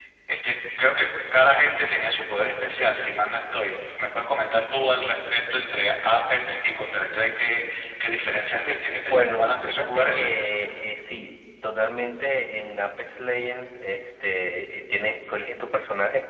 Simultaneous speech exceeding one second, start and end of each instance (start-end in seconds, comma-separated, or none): 8.9-10.2